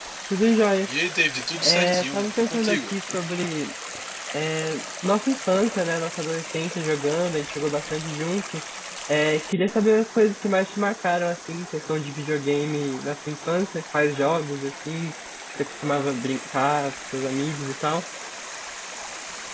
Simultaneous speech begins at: 1.6 s

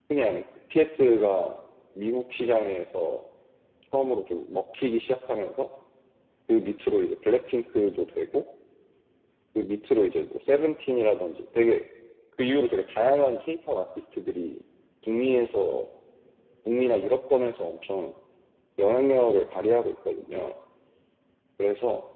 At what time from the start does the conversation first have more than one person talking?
none

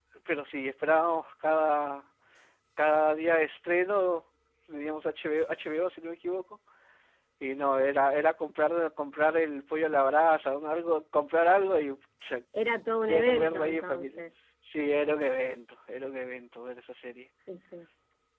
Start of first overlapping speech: 12.9 s

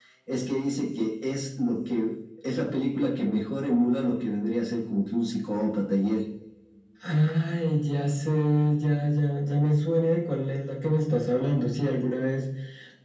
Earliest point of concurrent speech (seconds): none

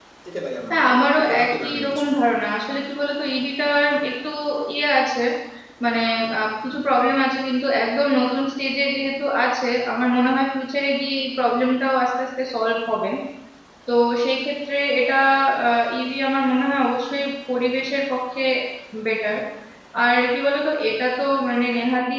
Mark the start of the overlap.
0.7 s

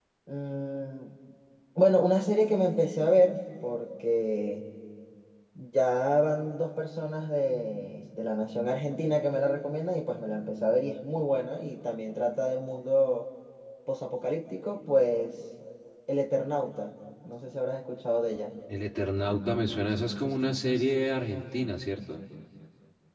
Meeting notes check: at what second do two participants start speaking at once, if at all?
none

